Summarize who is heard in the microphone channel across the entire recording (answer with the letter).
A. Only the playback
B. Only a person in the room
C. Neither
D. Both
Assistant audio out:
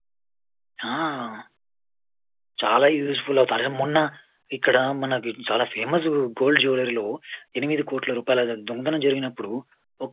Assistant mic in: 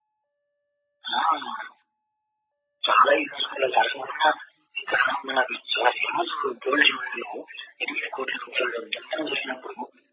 A